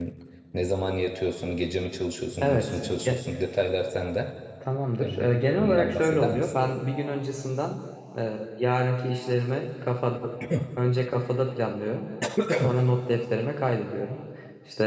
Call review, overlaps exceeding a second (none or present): present